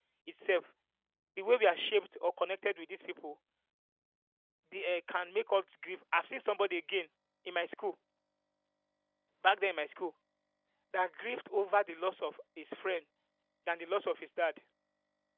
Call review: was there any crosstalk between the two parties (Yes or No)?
No